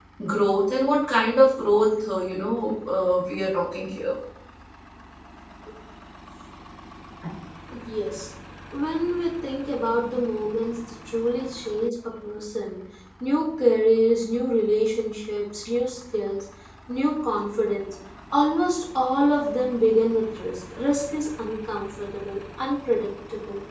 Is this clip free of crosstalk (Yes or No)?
Yes